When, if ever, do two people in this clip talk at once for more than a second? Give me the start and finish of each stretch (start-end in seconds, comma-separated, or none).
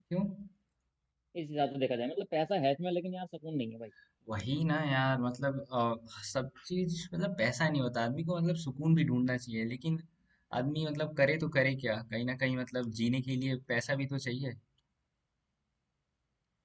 none